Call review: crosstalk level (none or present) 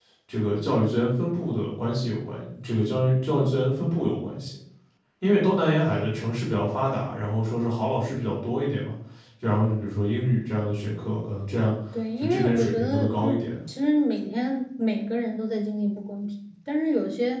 present